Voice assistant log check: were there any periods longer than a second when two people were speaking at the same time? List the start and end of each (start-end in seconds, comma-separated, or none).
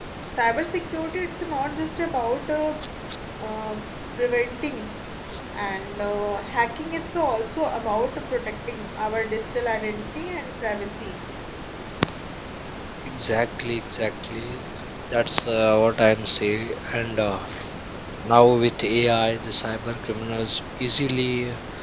none